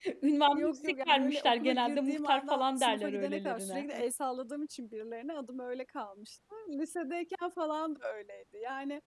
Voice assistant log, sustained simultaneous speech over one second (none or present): present